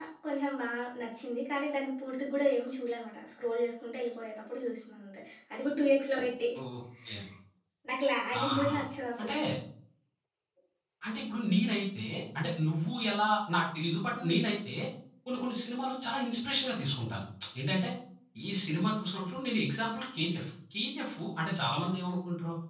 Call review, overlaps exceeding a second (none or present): none